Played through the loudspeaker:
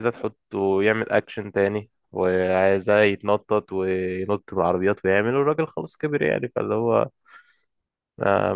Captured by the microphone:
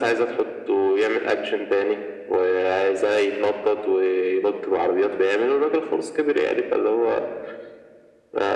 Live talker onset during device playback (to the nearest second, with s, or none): none